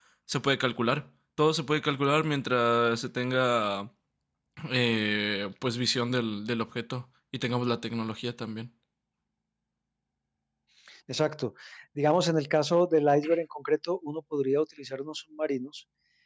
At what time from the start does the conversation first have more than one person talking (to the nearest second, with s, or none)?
none